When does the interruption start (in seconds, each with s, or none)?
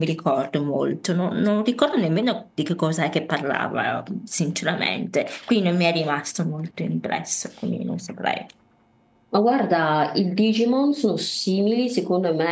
none